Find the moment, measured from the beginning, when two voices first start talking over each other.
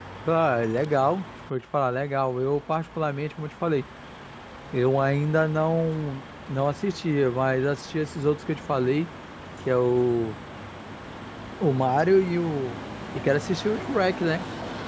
none

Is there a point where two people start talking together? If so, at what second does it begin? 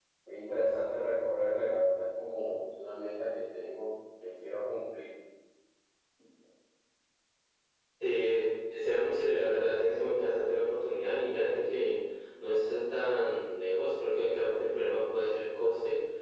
none

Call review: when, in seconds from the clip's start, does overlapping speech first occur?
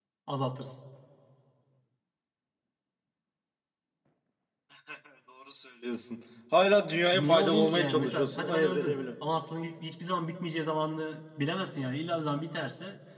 7.1 s

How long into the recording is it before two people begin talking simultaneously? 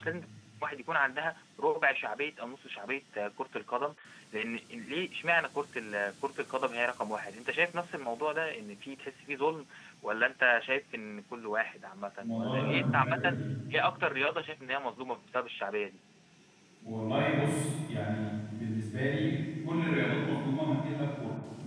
12.2 s

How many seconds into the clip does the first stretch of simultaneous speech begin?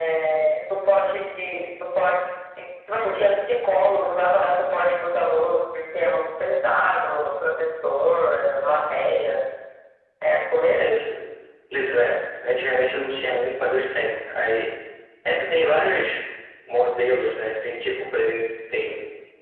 none

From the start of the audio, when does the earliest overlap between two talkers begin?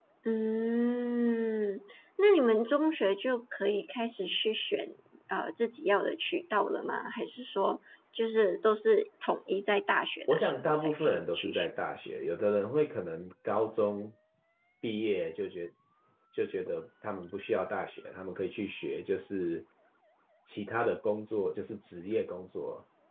10.3 s

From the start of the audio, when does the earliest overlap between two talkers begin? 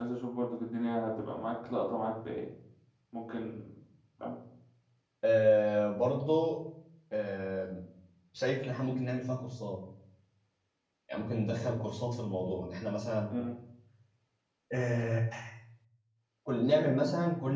none

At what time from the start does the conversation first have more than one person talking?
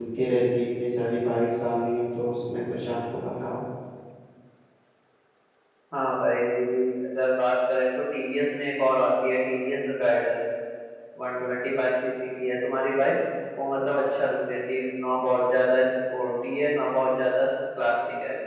none

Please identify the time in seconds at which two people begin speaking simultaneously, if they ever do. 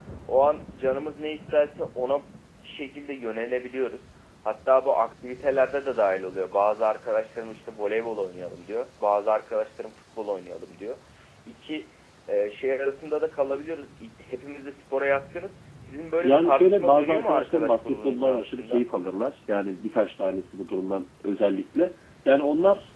16.2 s

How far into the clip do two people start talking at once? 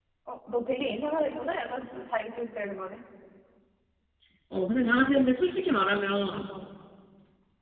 none

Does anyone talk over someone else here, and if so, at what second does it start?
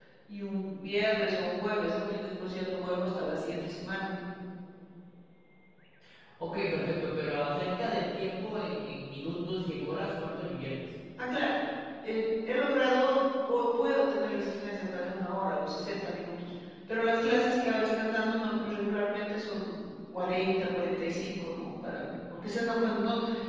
none

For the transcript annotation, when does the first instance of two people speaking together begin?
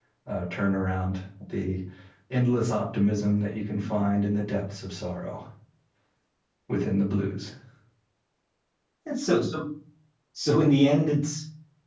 none

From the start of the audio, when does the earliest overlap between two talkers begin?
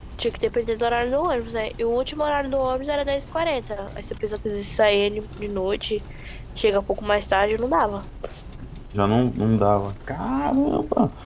none

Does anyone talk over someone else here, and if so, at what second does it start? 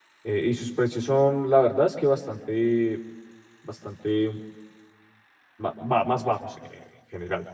none

